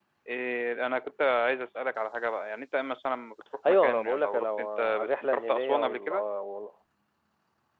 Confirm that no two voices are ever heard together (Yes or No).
No